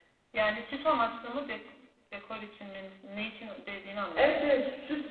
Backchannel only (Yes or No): No